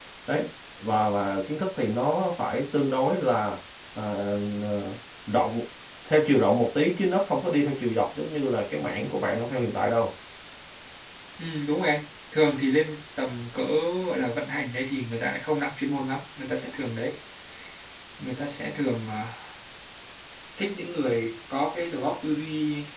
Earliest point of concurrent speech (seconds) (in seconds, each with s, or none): none